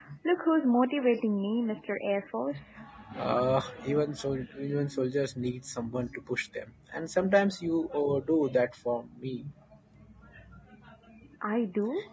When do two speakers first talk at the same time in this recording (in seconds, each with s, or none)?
none